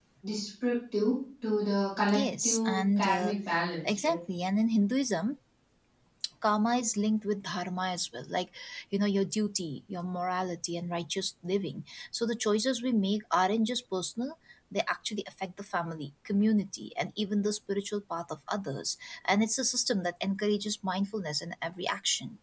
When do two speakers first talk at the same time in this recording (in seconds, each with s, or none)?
2.1 s